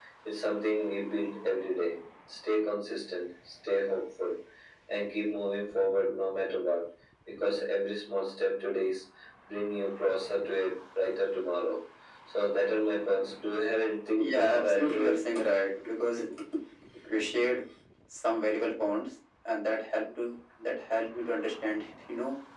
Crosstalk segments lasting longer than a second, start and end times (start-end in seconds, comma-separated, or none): 14.2-15.4